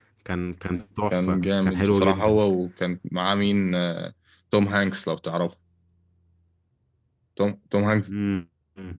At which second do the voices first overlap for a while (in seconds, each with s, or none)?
1.1 s